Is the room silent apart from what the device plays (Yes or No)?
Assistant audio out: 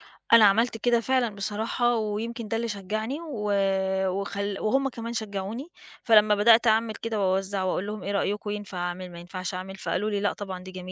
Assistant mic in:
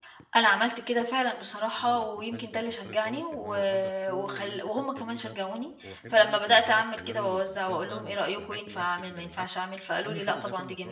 No